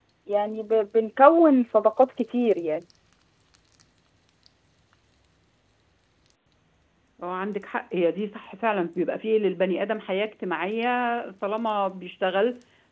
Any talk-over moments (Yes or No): No